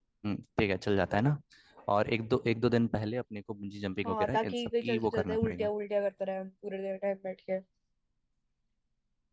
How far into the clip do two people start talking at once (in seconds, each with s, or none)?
4.0 s